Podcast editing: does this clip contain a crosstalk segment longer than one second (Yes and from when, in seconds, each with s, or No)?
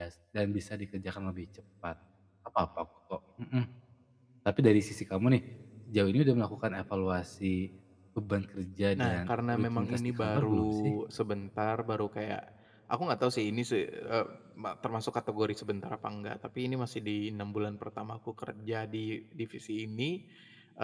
Yes, from 9.0 s